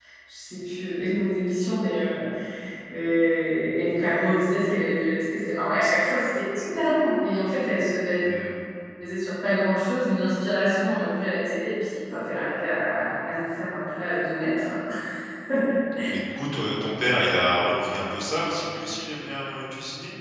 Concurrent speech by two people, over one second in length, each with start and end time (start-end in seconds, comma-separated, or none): none